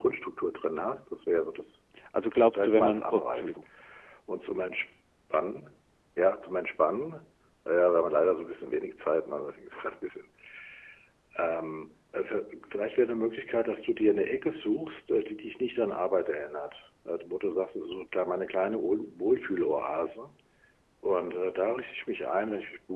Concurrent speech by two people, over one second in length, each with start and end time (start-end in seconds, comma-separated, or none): 2.3-3.6